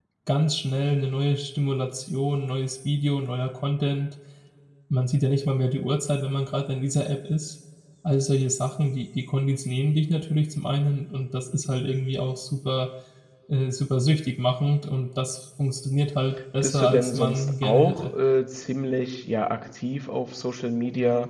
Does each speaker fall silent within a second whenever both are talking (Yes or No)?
No